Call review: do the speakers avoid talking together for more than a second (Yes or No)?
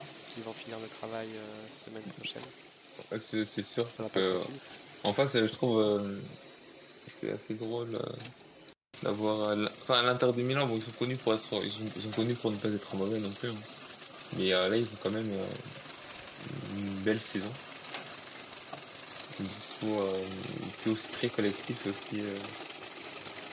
Yes